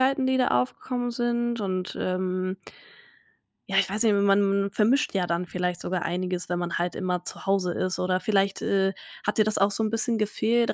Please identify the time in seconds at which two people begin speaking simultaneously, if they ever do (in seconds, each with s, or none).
none